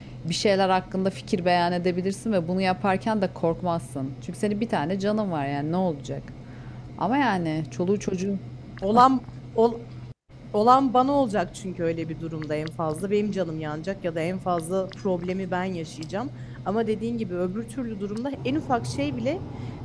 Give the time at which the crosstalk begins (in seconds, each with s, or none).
none